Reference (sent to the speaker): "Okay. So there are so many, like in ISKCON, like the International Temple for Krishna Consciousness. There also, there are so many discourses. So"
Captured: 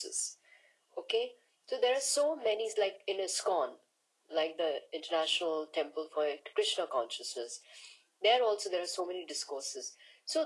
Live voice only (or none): none